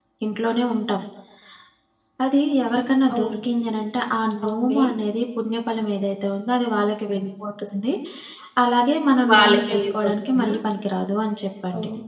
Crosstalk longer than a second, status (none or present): present